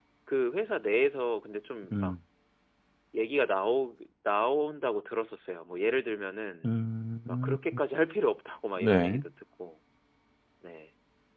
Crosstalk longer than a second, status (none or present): none